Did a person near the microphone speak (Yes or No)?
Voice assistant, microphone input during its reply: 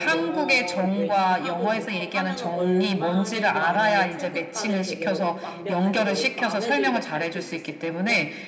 Yes